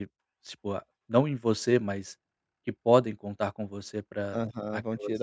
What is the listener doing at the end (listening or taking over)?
taking over